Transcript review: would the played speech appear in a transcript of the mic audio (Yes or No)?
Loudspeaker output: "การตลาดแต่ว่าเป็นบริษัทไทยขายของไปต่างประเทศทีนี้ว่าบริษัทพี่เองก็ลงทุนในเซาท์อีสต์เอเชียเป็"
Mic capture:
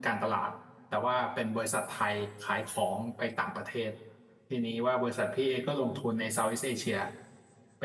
Yes